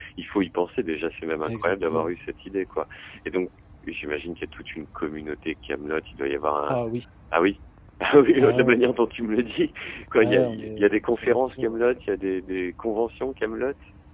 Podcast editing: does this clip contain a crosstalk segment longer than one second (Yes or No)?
Yes